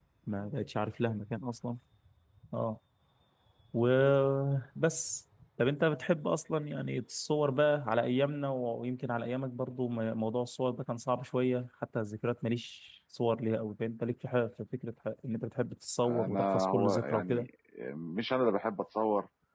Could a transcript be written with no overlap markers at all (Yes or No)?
No